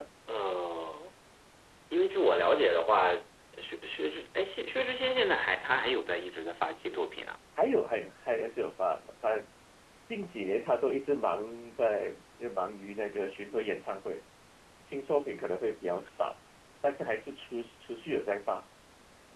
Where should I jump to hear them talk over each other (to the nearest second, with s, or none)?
none